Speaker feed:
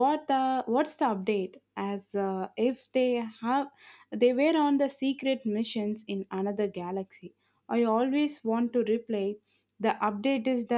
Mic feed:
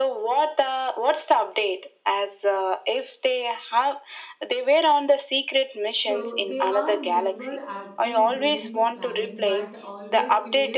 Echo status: present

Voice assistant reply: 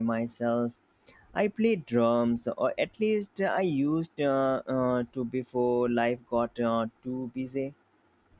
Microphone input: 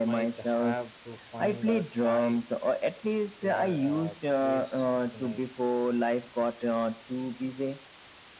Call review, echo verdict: present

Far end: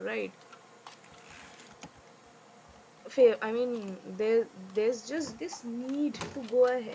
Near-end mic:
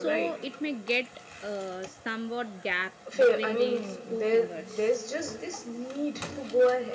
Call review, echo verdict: present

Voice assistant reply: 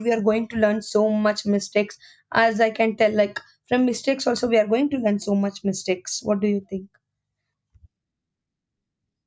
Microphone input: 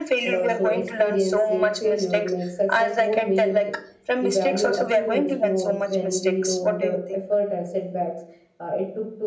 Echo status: present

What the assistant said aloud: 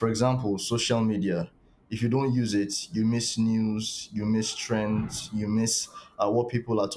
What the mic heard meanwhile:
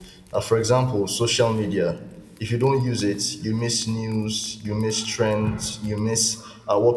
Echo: present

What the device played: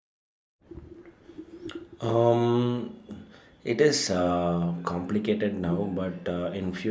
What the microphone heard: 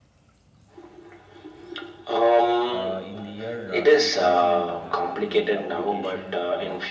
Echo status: present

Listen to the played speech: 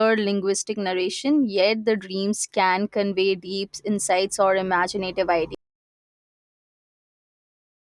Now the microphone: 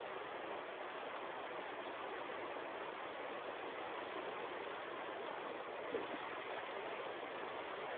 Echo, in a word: none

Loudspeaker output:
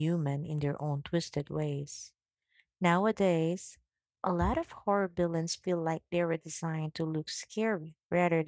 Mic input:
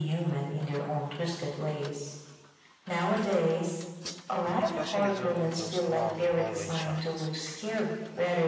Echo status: present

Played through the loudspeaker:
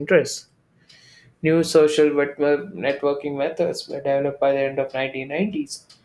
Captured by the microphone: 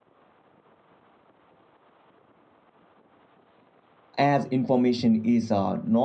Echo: none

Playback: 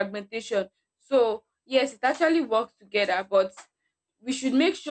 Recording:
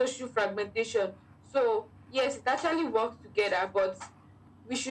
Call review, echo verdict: present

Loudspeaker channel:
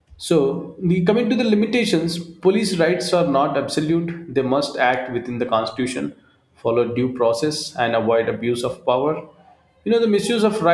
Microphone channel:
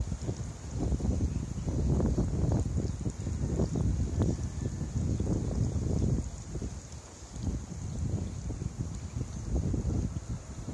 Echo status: none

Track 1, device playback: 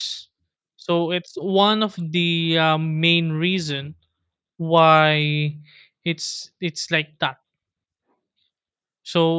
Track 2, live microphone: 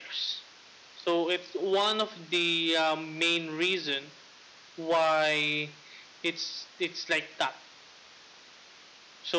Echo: present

